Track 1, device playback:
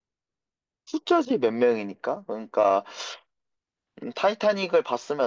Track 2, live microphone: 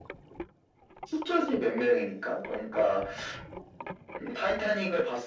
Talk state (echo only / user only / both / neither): echo only